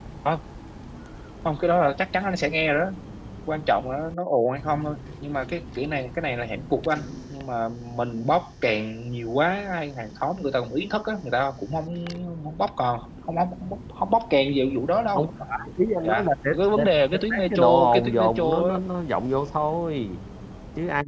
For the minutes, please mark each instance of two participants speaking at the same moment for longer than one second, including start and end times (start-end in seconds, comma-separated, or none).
16.0-18.8